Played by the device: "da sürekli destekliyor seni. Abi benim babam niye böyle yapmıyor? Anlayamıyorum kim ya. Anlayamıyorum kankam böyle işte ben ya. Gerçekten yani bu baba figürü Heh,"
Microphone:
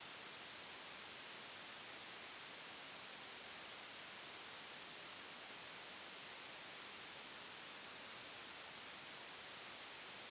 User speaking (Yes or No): No